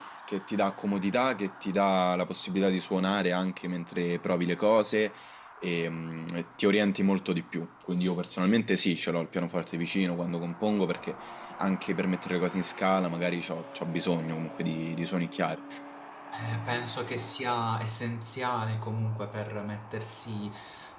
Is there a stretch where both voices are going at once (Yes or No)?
No